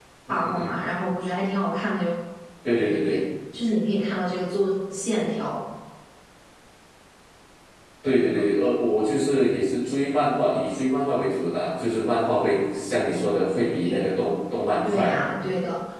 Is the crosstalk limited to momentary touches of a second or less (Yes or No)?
Yes